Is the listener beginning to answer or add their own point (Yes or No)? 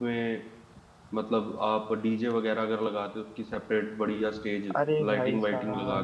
Yes